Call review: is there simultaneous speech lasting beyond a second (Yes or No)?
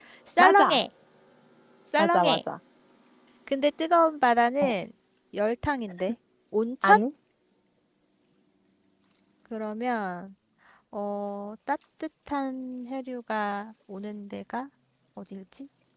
No